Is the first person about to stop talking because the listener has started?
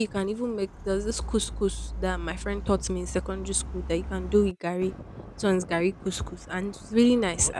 No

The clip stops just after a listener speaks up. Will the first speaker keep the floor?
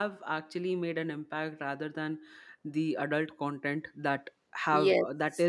Yes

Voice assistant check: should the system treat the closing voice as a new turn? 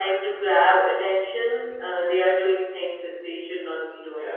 Yes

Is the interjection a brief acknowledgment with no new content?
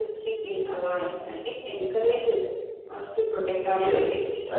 No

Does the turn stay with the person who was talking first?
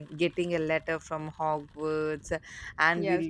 Yes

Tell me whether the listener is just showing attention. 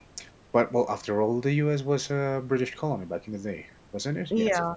No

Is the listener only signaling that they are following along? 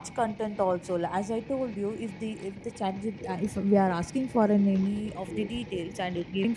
Yes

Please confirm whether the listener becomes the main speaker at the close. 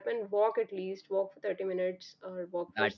Yes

